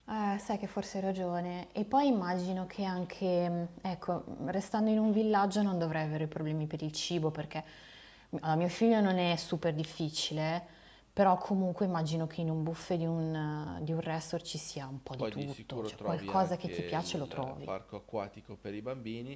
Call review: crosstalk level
present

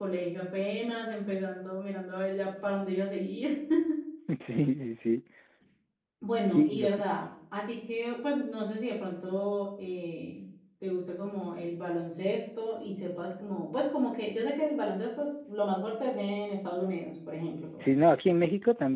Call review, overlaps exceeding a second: none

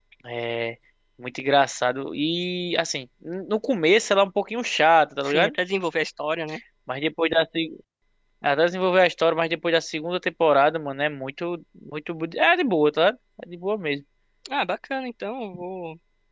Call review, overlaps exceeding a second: none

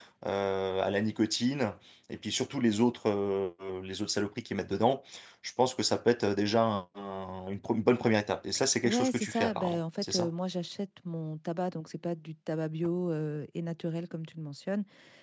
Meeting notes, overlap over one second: present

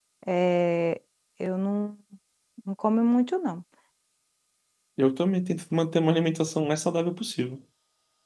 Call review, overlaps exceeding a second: none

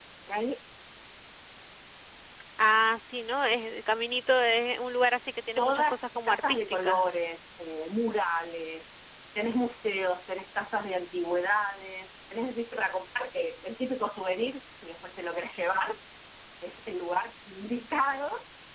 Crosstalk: present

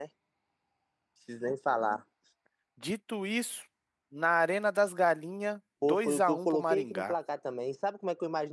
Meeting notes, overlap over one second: present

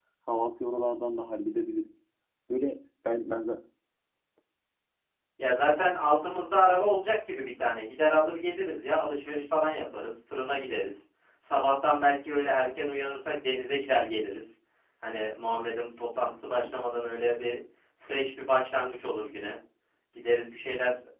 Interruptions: none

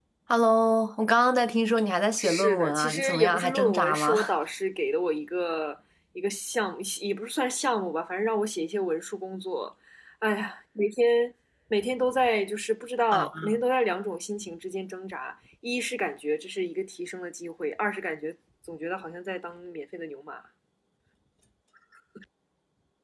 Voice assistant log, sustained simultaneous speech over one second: present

